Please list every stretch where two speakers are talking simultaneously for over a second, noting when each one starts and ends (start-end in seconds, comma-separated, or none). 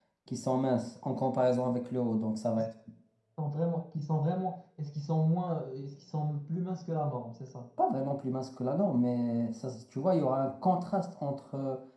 none